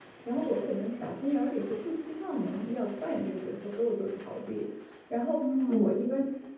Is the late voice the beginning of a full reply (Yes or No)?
No